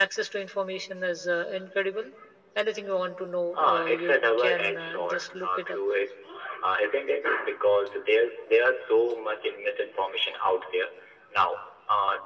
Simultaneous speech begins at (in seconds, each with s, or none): 3.5 s